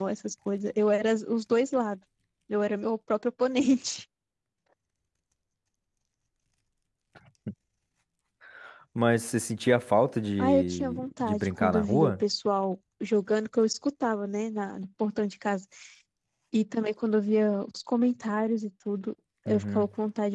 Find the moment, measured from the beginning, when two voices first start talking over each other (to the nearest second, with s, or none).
10 s